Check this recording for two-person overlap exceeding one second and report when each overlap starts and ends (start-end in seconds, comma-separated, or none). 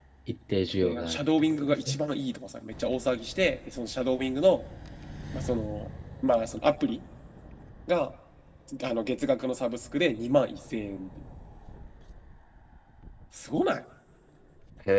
0.7-2.0